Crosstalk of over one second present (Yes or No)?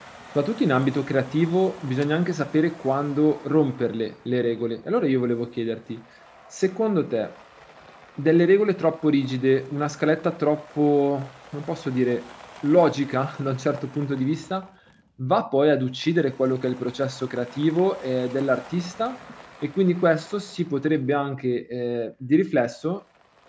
No